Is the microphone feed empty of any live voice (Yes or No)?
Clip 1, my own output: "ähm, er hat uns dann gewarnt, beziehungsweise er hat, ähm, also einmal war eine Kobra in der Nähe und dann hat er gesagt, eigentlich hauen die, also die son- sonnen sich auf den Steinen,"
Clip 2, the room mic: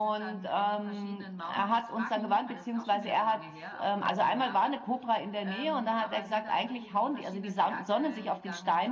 No